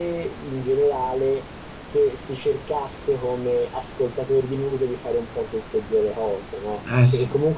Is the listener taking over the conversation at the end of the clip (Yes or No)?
No